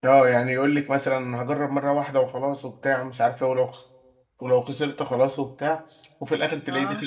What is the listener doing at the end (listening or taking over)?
listening